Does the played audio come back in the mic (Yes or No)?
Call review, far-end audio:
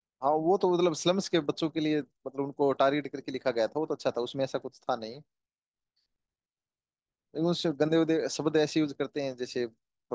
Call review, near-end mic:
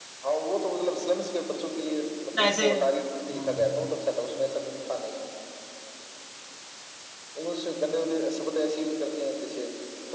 Yes